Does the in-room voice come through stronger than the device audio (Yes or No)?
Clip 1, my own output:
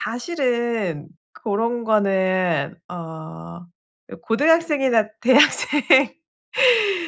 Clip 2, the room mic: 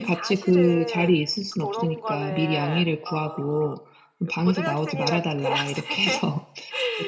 Yes